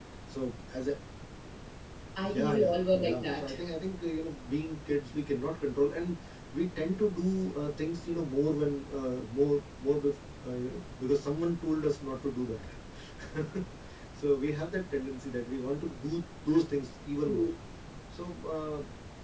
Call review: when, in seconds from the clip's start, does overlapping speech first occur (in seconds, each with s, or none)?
2.2 s